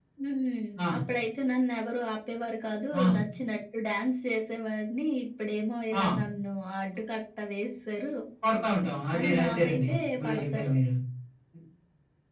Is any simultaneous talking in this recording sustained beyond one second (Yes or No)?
Yes